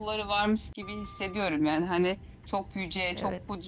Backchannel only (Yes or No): Yes